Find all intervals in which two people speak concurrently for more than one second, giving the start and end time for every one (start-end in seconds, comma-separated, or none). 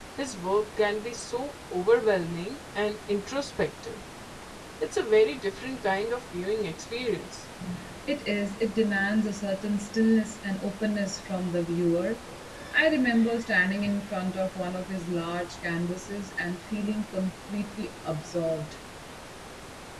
none